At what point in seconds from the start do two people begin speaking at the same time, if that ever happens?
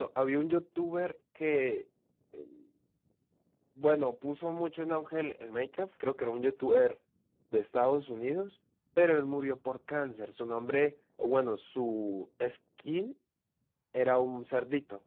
none

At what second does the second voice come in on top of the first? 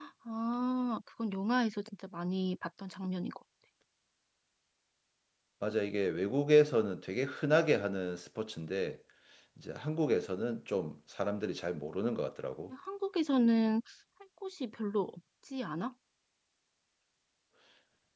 none

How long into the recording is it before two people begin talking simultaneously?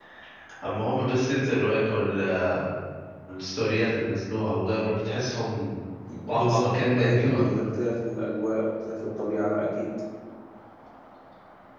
6.3 s

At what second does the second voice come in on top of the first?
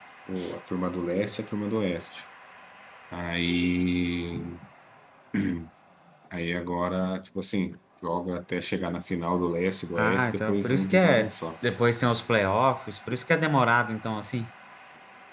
10.0 s

